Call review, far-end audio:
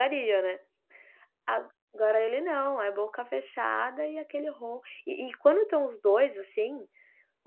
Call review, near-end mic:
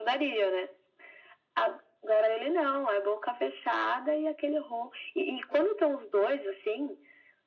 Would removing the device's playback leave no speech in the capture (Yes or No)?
Yes